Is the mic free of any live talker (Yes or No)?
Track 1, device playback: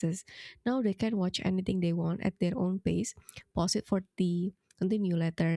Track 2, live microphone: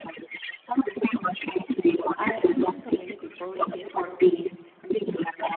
No